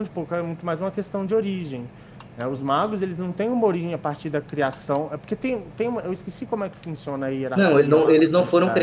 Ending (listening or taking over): taking over